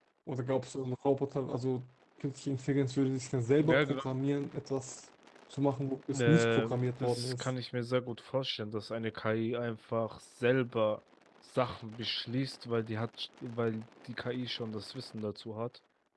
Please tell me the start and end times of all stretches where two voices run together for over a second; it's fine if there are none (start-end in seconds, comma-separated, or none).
6.1-7.5